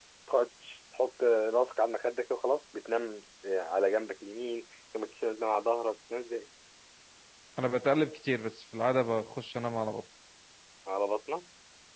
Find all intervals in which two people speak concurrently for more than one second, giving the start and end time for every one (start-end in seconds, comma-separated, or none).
none